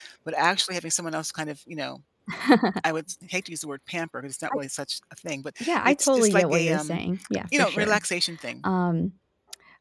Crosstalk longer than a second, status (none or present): present